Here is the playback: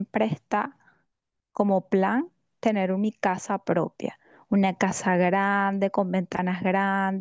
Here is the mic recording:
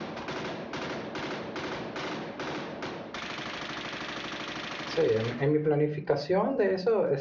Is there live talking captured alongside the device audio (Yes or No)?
Yes